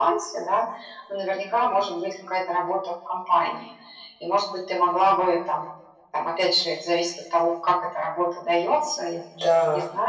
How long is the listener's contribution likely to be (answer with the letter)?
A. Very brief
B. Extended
A